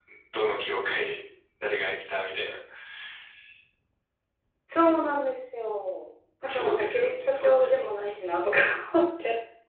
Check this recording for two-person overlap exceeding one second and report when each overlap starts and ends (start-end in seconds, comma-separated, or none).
6.4-7.8